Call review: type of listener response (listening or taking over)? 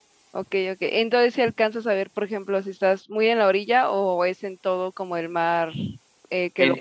taking over